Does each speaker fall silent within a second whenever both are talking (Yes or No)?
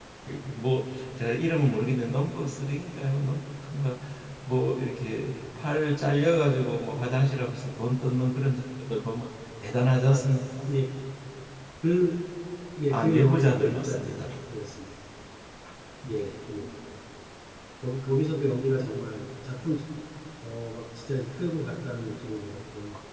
No